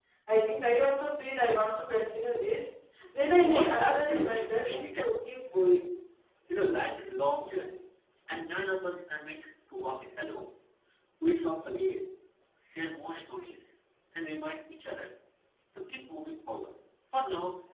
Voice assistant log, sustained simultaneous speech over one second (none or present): present